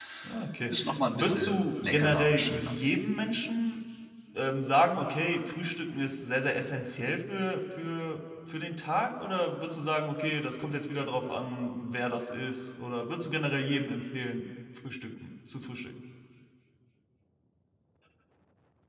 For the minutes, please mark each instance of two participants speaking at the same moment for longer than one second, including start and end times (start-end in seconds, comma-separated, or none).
1.1-2.8